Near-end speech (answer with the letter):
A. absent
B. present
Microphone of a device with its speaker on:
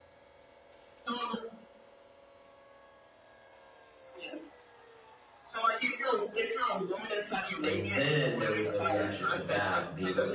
B